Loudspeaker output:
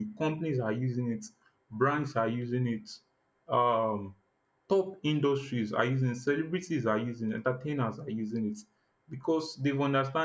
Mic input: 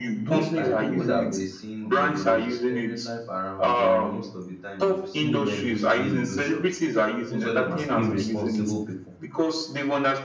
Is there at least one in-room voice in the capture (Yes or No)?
Yes